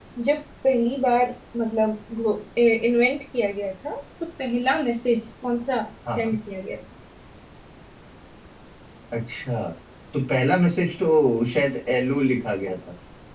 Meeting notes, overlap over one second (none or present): none